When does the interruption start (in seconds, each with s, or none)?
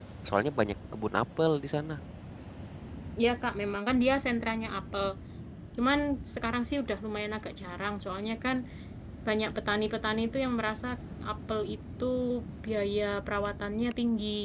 none